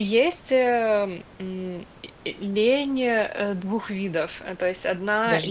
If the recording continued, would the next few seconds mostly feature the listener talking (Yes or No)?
No